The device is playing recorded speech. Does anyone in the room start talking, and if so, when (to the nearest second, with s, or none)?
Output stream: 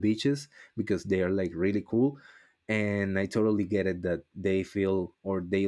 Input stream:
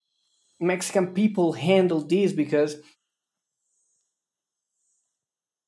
1 s